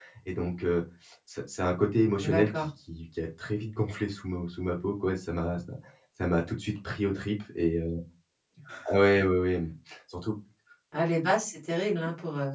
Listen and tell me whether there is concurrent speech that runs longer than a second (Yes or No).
No